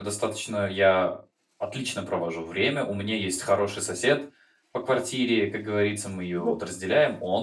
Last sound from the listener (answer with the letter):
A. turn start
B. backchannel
B